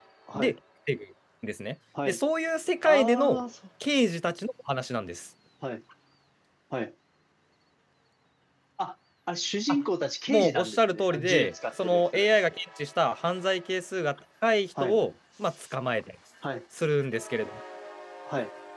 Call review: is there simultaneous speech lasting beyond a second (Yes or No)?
Yes